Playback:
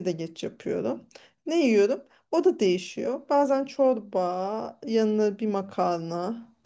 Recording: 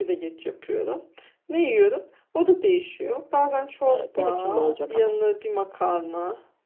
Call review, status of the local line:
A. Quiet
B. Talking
B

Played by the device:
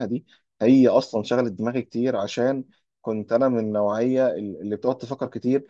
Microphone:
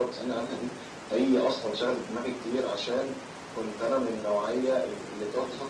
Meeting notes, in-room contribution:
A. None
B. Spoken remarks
A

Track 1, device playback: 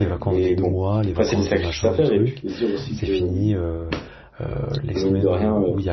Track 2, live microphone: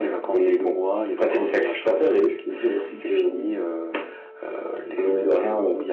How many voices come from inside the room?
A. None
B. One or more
A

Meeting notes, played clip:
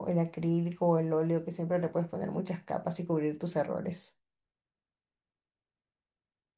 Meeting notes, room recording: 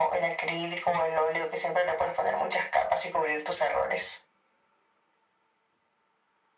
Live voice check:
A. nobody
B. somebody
A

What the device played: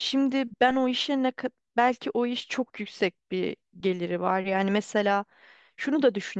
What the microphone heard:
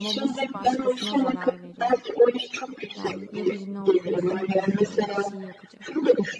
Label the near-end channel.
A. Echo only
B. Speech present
B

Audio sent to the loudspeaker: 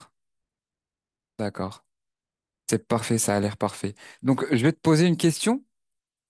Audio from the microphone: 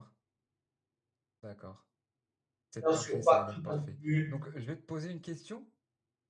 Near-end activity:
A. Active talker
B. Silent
A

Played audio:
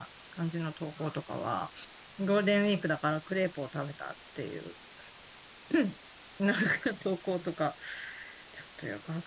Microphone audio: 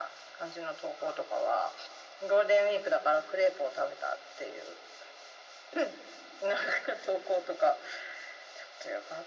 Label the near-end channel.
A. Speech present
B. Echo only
B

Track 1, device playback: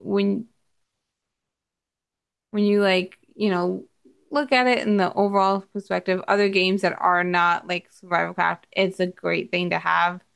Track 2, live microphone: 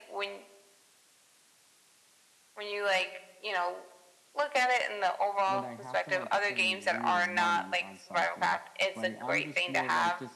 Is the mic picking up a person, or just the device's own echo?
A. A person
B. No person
A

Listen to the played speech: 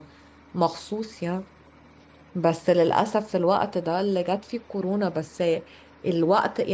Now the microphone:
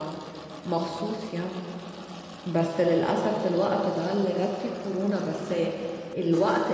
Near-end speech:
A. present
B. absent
B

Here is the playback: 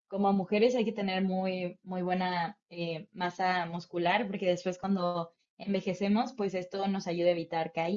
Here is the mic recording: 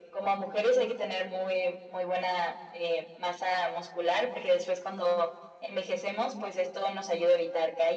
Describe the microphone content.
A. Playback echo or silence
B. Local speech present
A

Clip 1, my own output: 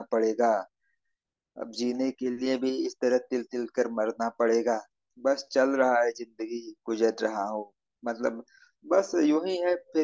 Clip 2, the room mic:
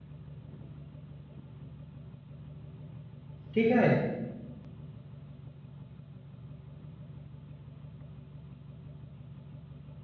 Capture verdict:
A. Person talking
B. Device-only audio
A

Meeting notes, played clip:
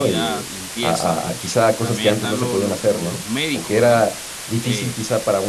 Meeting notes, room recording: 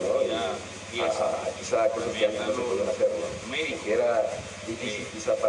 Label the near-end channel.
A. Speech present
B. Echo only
B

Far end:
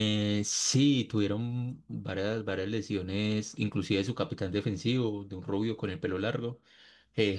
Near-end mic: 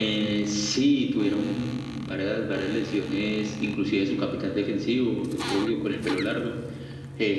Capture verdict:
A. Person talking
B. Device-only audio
B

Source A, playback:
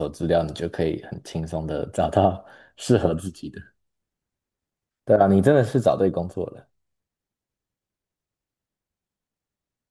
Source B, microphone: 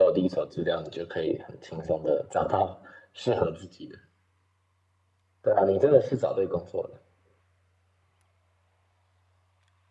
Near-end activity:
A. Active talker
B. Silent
B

